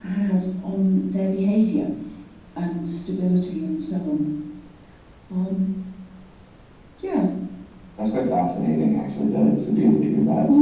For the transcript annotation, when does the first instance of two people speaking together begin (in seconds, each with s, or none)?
none